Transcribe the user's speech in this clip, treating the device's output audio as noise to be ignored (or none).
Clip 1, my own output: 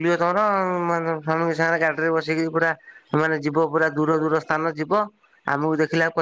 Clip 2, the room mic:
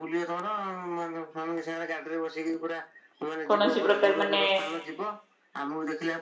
କୌଣସି ପ୍ରକାର ମାନେ